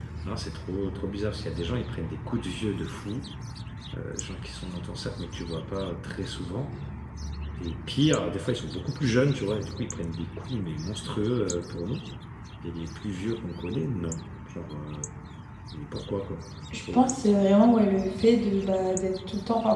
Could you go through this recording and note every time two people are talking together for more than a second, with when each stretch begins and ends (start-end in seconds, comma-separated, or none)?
none